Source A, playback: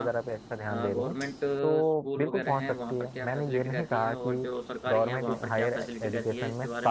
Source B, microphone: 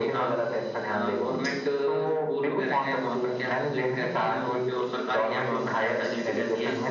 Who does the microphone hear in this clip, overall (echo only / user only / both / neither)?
echo only